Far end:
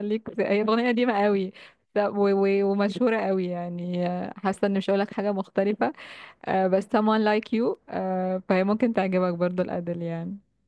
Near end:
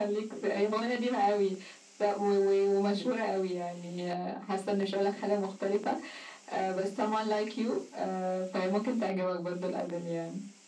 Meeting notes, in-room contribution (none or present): none